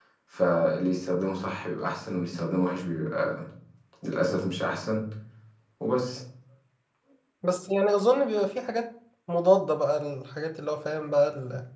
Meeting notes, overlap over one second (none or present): none